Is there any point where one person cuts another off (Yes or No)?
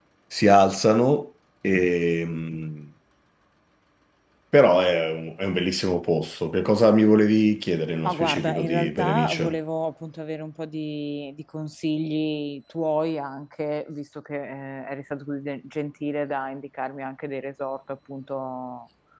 Yes